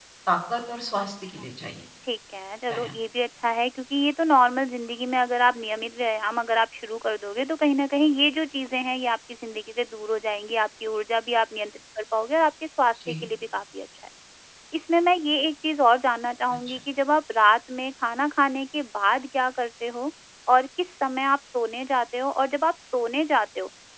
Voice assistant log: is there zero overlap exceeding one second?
Yes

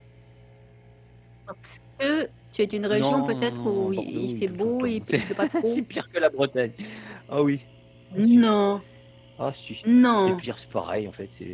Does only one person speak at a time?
No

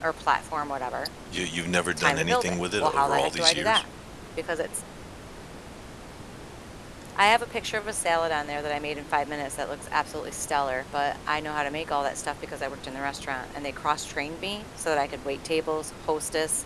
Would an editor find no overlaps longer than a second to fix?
No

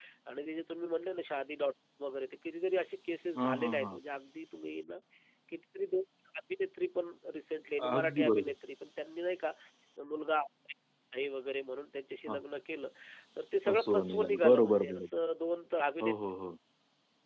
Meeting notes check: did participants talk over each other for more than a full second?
Yes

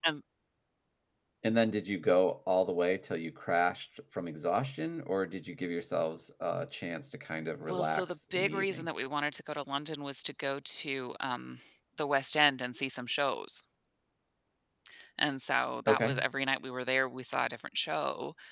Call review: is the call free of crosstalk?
No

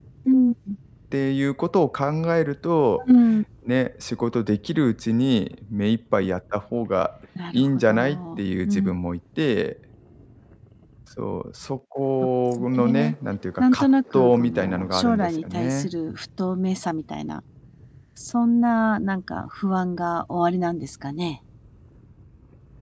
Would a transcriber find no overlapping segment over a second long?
No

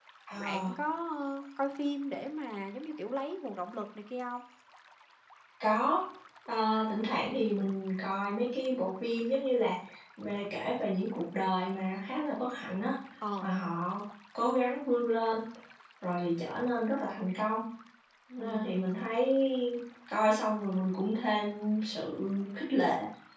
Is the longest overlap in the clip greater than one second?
No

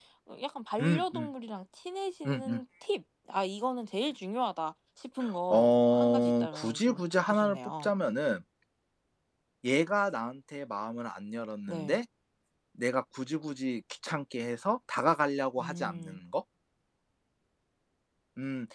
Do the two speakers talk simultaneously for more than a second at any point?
Yes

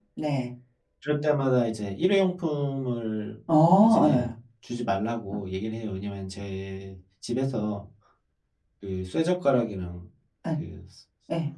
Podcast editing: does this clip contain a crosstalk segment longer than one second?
No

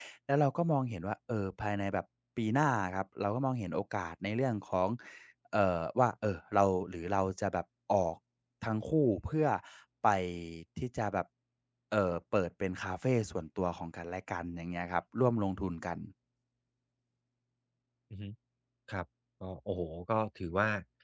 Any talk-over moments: No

